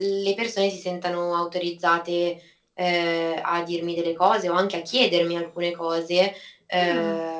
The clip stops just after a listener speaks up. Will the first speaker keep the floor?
Yes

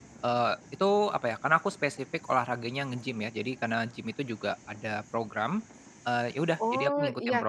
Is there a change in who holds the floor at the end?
Yes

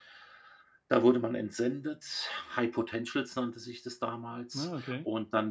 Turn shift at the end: No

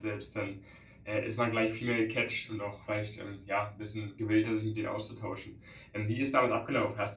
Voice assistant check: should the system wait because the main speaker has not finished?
Yes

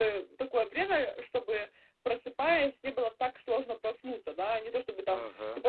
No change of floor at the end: Yes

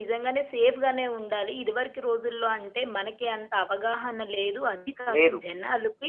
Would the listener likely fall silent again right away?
Yes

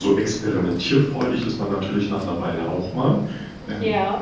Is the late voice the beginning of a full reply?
No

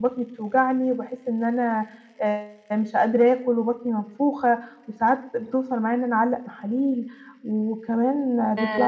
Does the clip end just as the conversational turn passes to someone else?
No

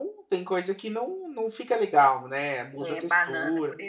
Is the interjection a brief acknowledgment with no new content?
No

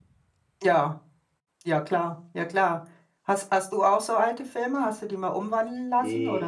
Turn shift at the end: Yes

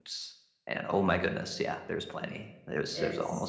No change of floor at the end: No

